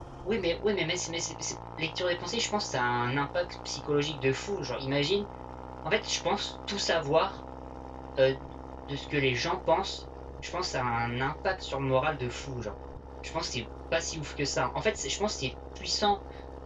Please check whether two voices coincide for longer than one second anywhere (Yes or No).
No